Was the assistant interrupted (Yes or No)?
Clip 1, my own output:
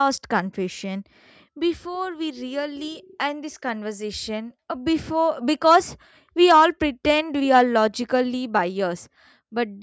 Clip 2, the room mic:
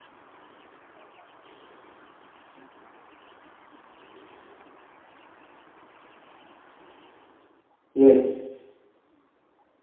Yes